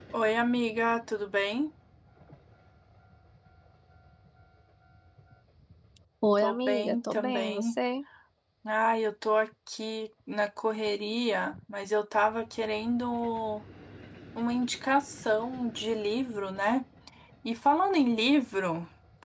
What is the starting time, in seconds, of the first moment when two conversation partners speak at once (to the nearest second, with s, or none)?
6 s